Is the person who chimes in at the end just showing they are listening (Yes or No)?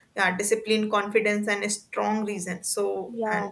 Yes